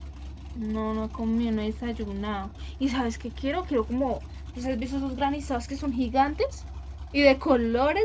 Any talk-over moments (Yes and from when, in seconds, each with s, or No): No